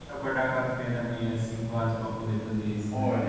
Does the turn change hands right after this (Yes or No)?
Yes